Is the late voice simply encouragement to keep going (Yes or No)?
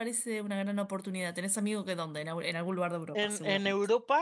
No